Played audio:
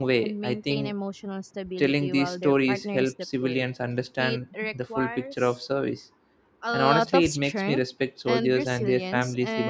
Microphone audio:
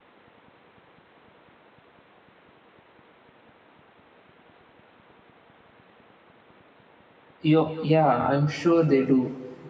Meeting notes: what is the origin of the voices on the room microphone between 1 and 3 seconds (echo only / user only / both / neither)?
neither